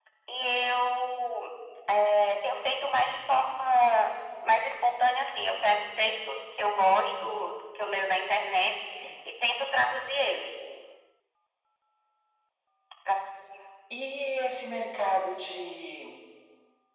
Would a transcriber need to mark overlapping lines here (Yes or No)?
No